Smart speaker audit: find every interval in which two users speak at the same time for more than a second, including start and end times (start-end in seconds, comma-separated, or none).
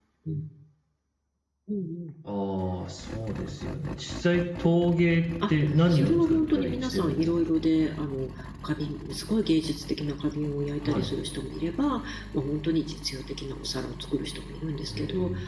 5.5-7.3